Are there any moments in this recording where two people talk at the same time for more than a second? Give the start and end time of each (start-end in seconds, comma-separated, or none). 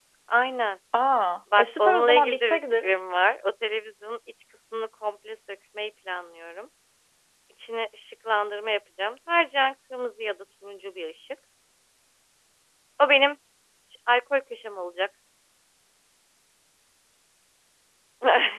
1.6-2.9